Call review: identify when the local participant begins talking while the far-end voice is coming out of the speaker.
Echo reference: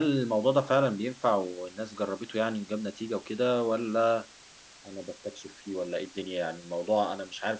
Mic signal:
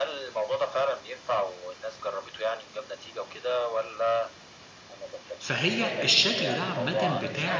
5 s

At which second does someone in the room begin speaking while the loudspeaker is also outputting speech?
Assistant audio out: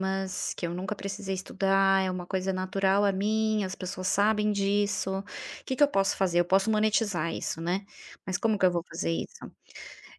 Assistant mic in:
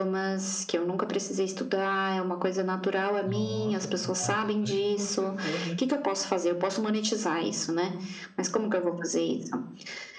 3 s

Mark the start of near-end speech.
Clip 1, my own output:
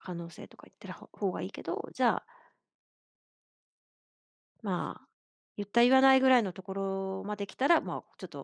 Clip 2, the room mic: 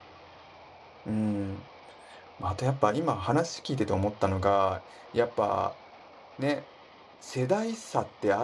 1 s

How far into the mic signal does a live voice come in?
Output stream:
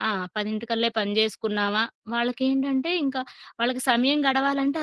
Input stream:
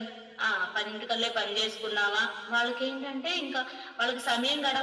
none

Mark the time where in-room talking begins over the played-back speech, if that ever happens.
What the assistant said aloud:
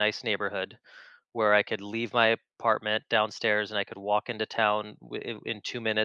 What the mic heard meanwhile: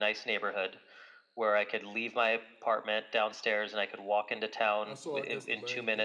5 s

